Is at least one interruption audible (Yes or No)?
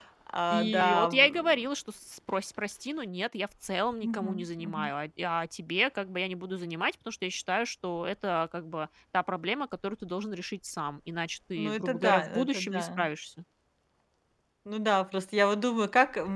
Yes